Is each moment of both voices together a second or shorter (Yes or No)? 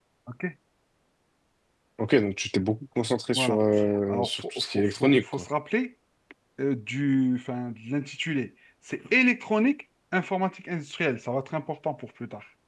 No